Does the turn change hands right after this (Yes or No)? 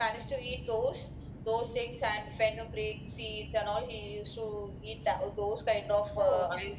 No